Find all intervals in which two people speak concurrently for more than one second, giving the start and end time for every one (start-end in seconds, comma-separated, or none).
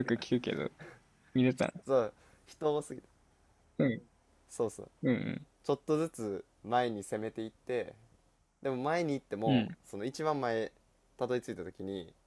none